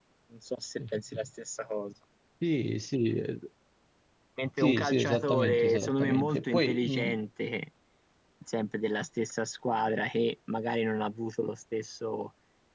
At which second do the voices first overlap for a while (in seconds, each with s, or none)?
4.6 s